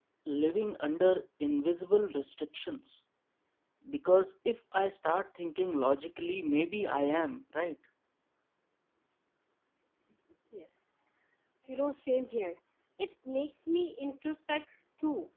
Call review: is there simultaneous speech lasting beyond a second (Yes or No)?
No